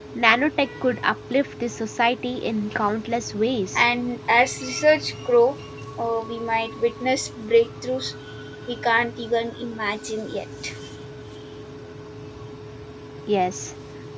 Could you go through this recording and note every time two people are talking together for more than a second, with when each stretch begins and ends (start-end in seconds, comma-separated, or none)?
none